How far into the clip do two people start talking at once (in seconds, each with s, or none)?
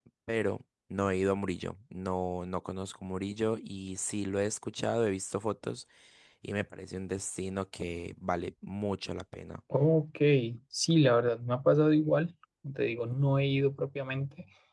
none